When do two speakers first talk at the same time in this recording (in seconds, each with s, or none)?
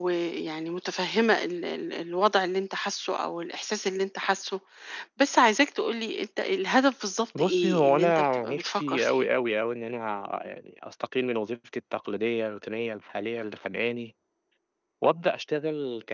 7.4 s